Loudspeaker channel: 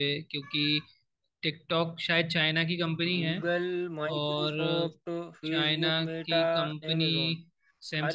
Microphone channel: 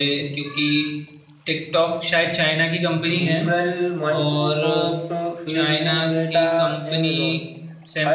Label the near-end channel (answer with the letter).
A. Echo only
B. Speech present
A